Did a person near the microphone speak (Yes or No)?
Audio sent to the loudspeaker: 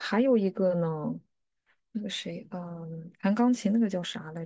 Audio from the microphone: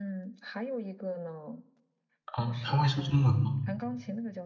Yes